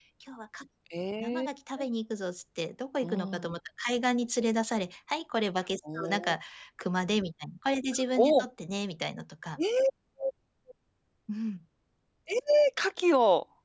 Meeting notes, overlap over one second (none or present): none